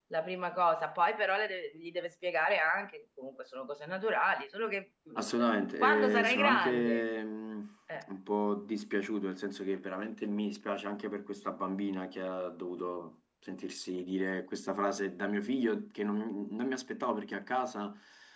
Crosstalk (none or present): present